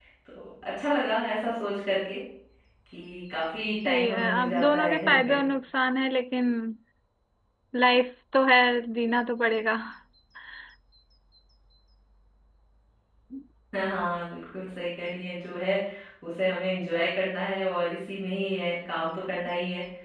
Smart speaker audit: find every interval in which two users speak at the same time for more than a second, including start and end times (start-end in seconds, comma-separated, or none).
3.9-5.4